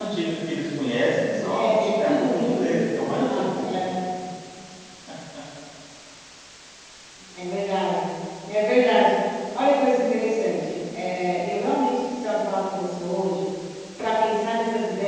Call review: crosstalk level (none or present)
present